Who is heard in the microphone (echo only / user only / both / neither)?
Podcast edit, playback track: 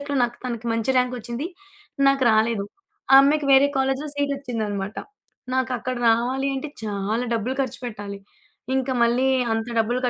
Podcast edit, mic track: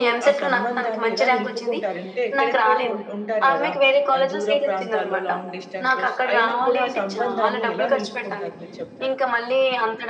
both